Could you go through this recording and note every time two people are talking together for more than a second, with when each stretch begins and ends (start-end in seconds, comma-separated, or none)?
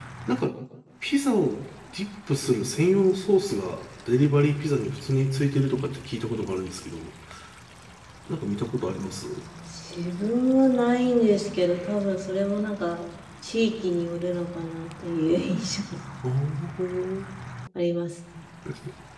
none